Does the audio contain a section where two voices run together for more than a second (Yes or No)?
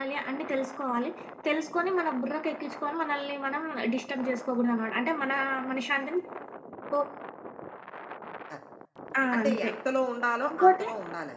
No